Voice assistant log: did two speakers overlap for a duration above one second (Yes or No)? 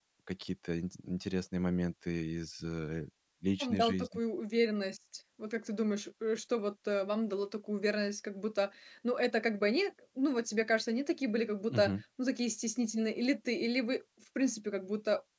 No